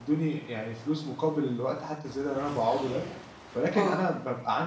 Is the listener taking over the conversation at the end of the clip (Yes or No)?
No